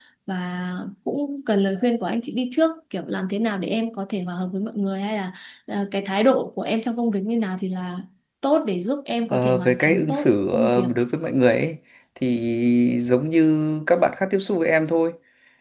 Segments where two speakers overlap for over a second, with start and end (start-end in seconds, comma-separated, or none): 9.3-10.9